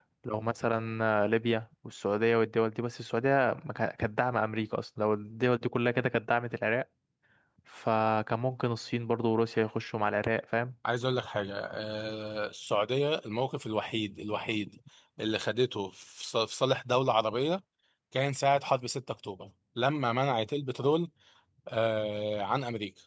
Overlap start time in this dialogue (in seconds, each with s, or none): none